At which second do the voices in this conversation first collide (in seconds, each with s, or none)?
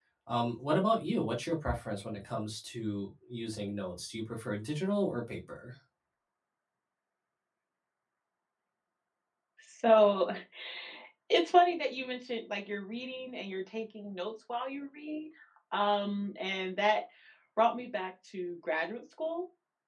none